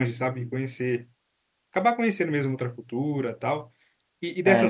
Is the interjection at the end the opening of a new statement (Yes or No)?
No